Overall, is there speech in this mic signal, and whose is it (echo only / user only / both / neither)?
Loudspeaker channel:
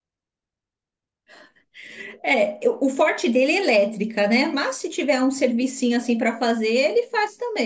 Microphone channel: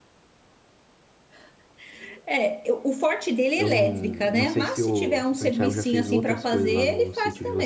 both